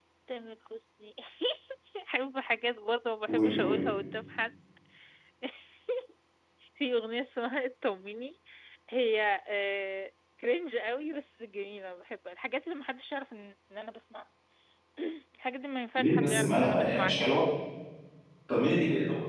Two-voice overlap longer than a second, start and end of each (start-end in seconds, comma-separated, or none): 16.0-17.4